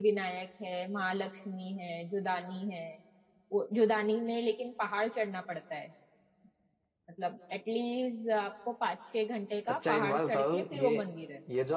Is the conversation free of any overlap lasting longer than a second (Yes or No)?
No